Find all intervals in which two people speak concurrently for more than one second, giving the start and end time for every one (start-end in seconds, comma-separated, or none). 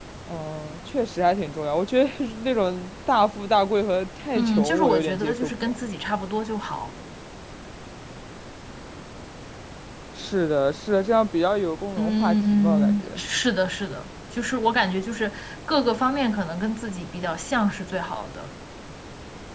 4.3-5.8, 12.0-13.2